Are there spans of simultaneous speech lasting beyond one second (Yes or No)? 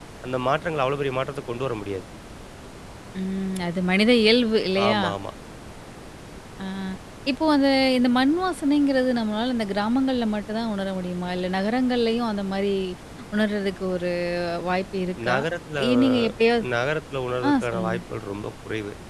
No